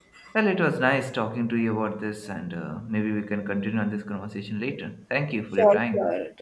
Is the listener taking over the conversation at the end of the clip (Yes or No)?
Yes